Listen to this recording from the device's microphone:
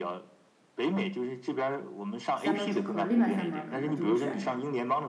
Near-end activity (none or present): present